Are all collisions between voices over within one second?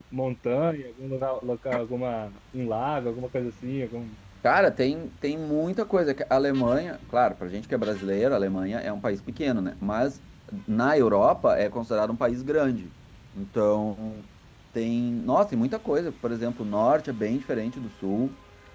Yes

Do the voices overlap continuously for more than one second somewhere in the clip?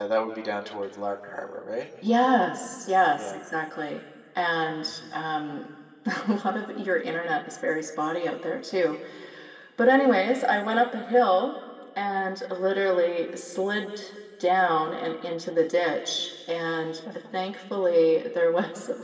No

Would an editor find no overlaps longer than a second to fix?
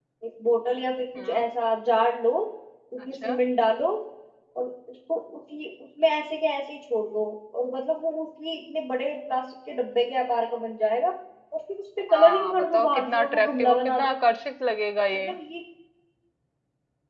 No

